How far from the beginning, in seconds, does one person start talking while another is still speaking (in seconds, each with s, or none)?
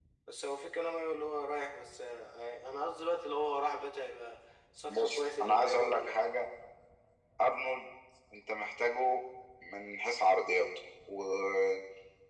4.9 s